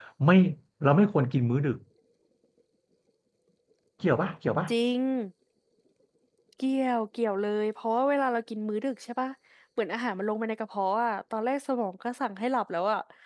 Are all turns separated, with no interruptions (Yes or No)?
Yes